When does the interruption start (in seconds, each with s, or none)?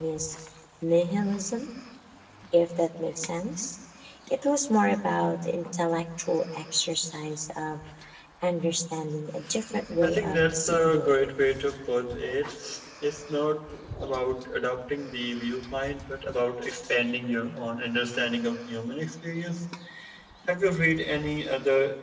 10.0 s